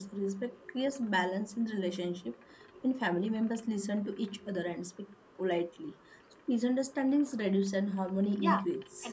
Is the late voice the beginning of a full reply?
Yes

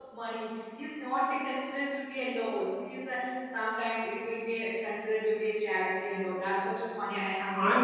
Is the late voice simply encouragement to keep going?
No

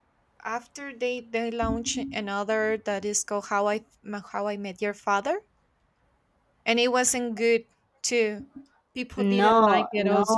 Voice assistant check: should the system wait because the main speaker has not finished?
No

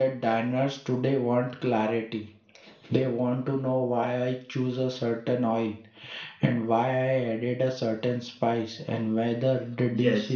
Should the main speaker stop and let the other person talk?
Yes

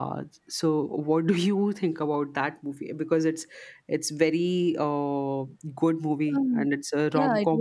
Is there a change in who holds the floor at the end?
Yes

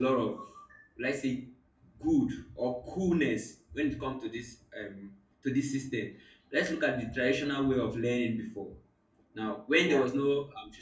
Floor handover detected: No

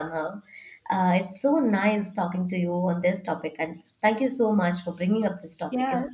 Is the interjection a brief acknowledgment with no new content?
No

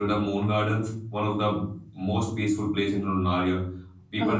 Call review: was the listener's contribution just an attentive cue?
Yes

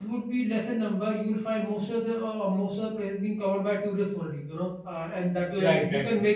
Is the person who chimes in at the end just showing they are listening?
Yes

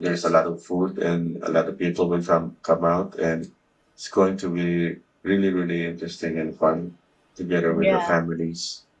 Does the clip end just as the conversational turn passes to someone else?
No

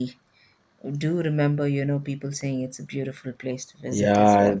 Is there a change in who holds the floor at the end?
Yes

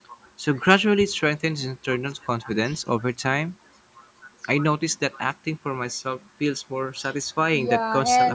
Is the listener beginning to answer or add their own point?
Yes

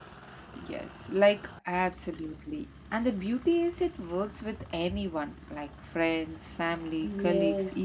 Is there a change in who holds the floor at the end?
Yes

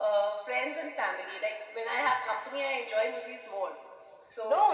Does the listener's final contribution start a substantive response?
Yes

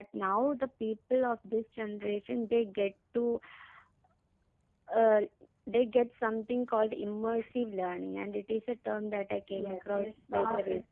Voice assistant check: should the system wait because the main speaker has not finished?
No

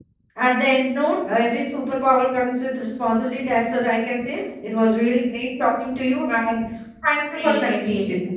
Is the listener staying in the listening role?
No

